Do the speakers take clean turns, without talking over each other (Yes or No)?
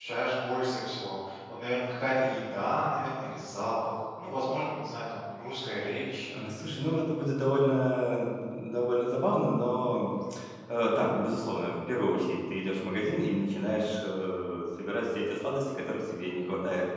Yes